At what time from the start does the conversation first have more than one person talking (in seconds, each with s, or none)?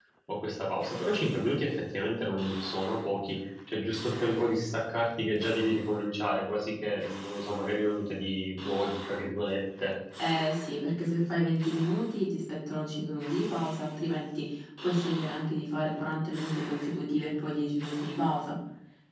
none